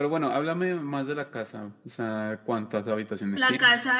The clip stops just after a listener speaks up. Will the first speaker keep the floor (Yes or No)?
No